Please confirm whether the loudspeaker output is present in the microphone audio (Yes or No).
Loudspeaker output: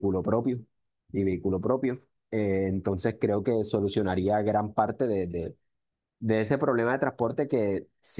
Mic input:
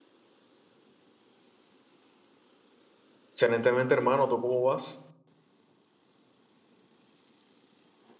No